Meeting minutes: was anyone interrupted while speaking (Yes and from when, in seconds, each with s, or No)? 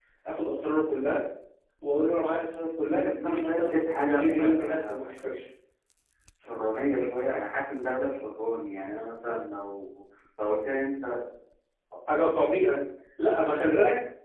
Yes, from 3.2 s